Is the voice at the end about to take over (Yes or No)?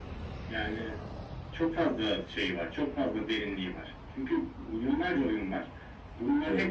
No